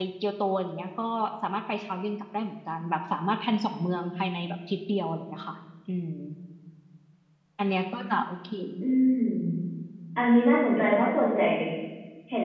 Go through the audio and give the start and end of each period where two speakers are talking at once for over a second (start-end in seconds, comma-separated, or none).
none